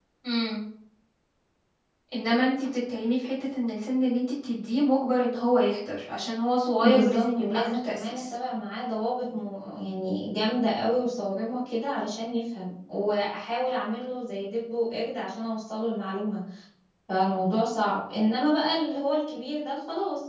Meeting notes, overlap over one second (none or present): present